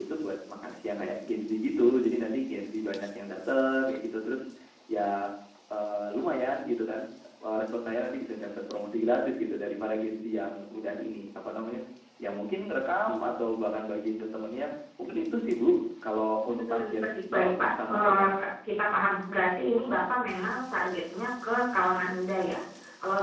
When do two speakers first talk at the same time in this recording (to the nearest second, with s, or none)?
16 s